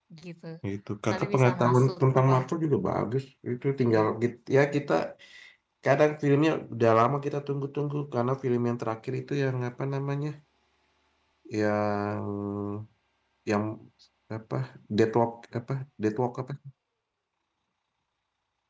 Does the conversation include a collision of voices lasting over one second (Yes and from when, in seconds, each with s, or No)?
Yes, from 1.1 s